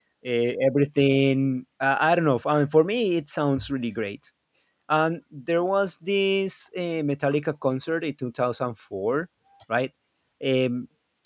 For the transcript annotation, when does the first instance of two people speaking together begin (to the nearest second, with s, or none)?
none